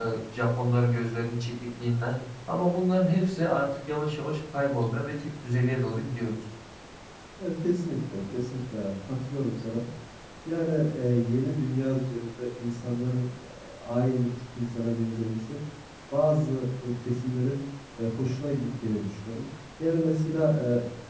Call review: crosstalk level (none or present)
none